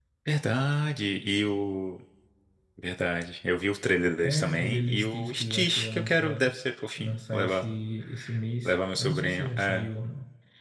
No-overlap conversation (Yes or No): No